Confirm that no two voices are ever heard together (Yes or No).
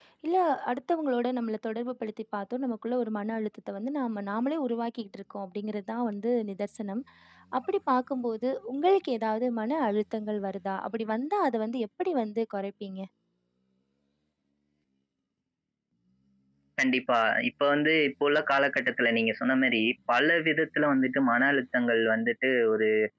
Yes